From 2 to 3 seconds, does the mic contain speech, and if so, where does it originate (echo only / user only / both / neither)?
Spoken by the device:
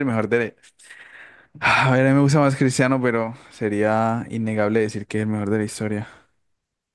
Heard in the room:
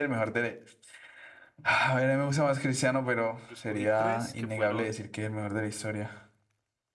echo only